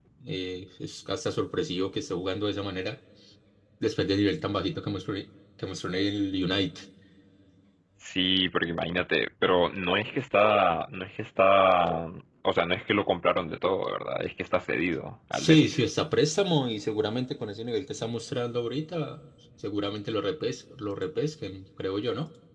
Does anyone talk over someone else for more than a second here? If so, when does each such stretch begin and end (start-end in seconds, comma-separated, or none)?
none